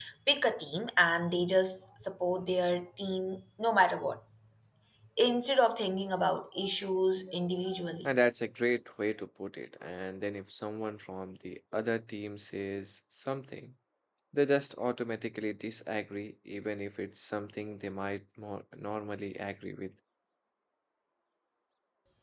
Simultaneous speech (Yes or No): No